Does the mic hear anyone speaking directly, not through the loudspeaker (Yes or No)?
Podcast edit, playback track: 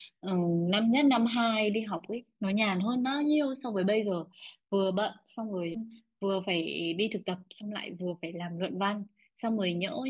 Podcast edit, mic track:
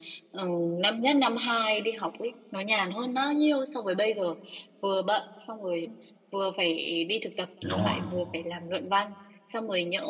Yes